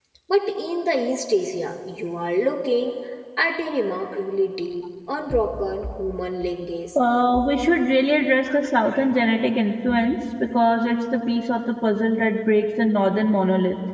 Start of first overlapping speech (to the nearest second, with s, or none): none